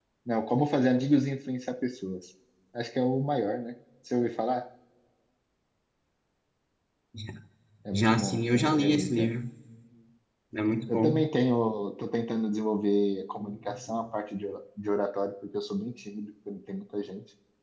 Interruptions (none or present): present